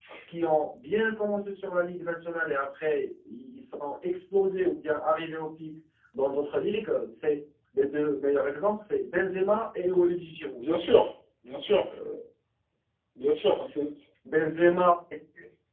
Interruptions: none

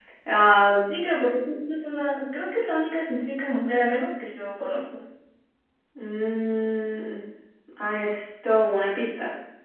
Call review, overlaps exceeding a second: none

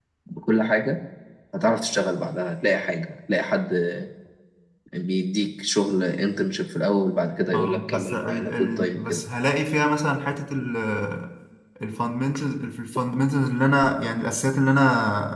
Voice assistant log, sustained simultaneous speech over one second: present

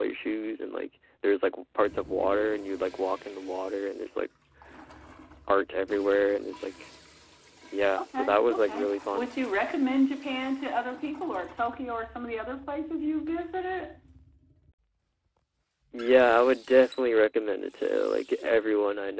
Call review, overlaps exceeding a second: present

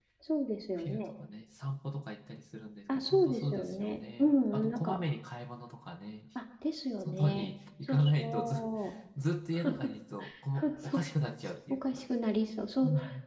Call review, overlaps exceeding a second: present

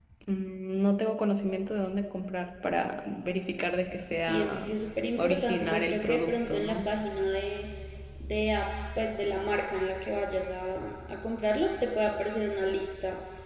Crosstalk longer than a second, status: present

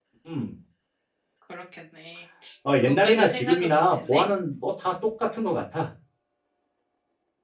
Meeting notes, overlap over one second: present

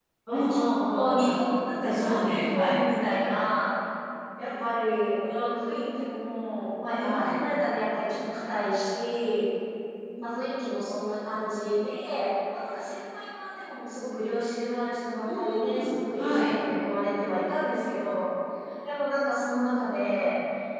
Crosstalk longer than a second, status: present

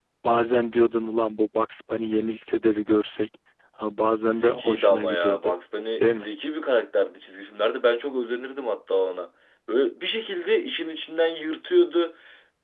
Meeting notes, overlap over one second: present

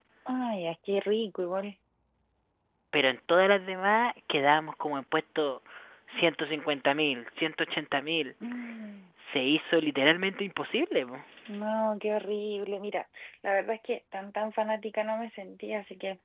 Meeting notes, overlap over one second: none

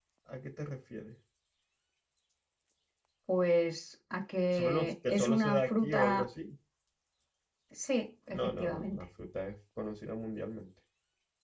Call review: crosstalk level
present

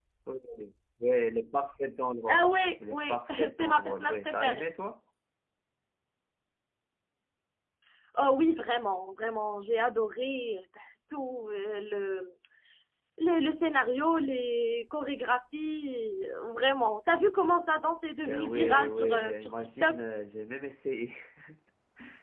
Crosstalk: present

